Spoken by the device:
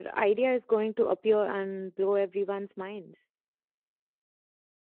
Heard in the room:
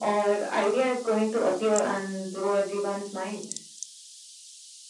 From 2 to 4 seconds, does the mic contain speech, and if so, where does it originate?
echo only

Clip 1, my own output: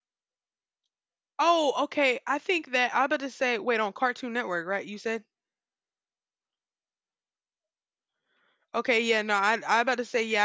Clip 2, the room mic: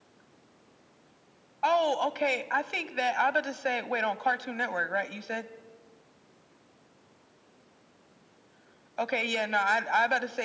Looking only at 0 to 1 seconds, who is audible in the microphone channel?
neither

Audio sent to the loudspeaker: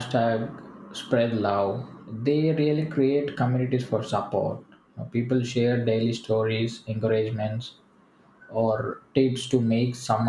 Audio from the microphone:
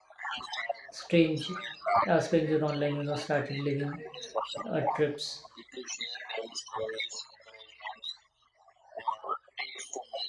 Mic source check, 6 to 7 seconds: echo only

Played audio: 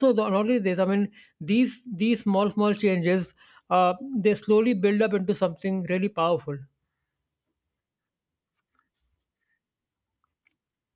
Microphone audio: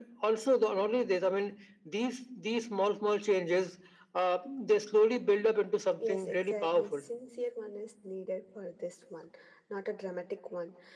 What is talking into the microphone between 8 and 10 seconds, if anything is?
user only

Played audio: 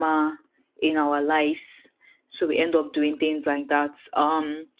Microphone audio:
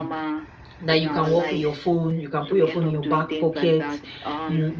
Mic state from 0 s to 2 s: both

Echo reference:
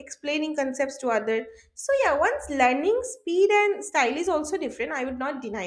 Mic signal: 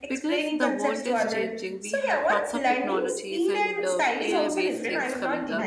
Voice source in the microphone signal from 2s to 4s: both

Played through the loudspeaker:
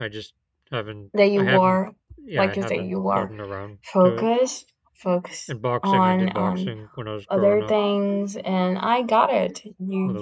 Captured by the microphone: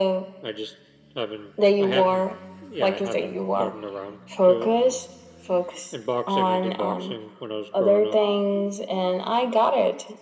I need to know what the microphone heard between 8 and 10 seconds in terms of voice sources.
echo only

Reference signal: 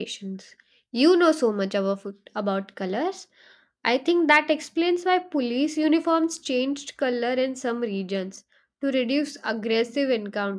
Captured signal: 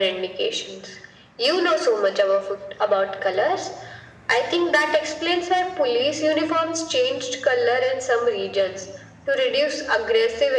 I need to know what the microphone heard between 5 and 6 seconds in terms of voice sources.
echo only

